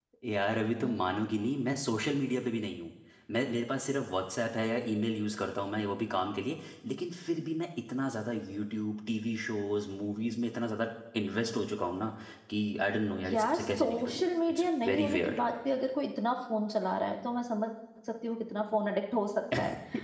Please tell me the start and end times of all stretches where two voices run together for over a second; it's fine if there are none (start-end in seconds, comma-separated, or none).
13.3-15.4